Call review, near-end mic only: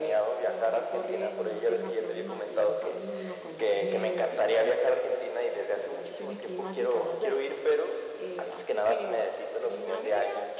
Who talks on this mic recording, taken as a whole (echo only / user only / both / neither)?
both